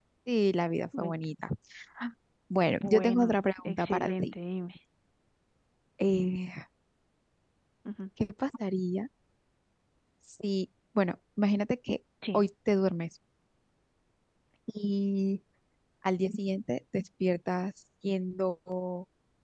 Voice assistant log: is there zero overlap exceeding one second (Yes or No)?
No